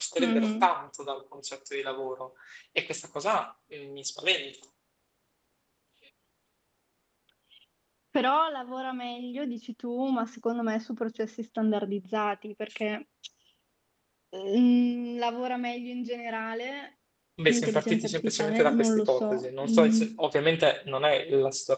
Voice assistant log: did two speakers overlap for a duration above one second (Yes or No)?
Yes